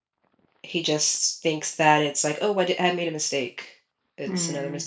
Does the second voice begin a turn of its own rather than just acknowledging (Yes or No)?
Yes